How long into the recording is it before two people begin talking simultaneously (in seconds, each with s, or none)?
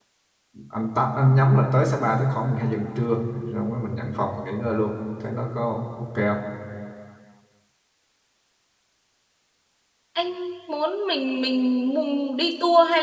none